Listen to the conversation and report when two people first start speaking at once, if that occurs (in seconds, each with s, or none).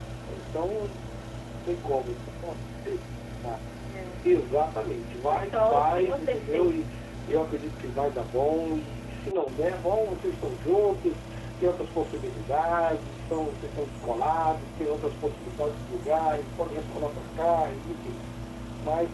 5.3 s